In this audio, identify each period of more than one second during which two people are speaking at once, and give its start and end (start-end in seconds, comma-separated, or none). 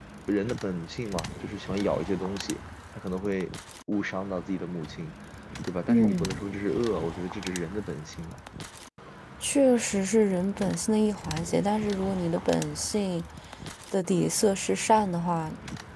none